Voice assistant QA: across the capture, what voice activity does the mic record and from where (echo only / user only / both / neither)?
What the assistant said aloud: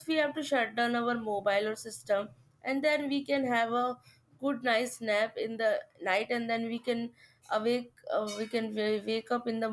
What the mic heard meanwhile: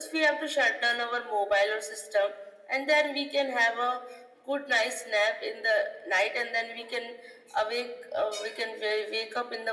echo only